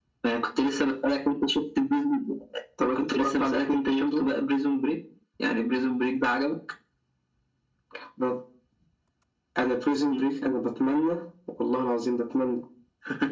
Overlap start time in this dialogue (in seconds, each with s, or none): 3.0 s